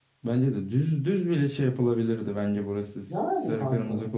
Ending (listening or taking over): listening